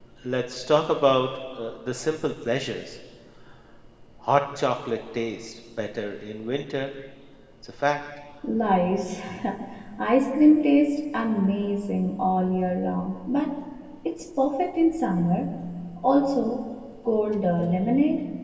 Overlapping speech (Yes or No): No